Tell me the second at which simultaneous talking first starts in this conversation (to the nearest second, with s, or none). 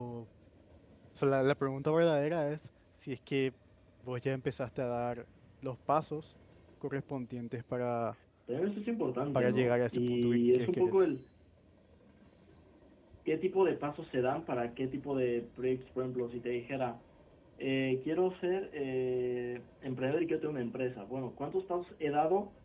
9 s